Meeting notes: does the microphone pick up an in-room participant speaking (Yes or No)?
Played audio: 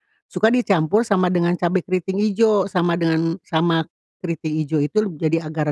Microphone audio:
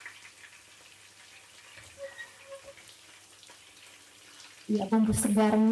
Yes